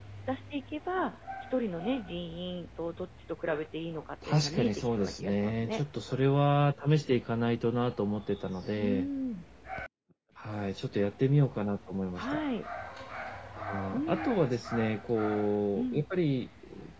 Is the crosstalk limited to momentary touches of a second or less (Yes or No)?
No